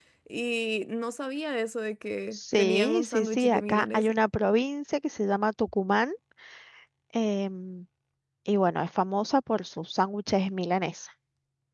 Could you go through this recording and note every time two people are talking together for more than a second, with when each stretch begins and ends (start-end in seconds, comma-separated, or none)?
2.3-4.2